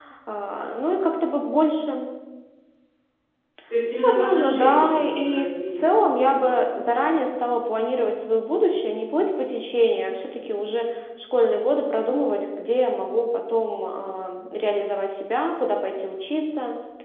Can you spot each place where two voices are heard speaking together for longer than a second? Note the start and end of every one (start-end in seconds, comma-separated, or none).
4.0-7.2